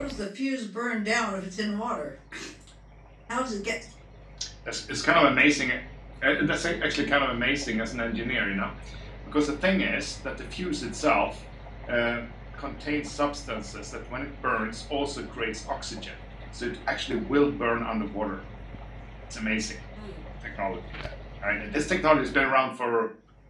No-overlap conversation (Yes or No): Yes